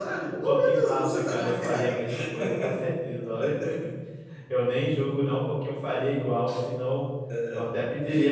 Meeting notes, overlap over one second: present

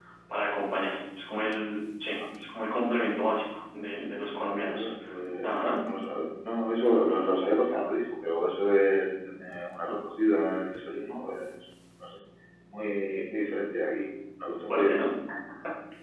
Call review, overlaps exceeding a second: none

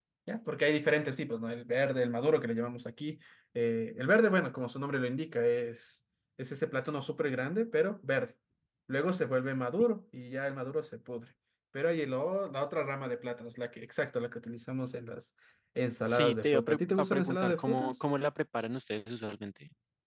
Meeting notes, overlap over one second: present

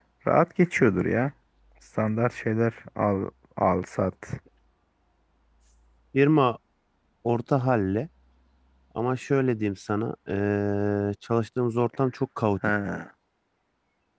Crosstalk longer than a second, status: none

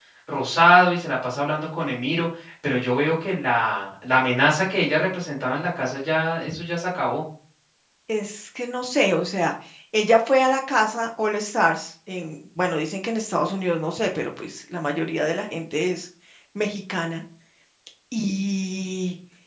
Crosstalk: none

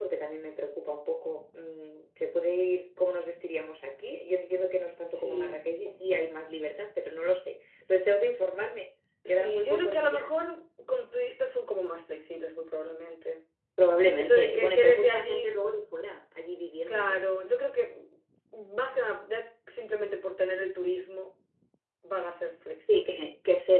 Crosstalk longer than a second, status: present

